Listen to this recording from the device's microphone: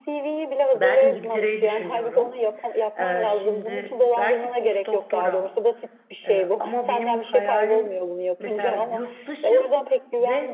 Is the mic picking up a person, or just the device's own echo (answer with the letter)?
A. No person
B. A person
B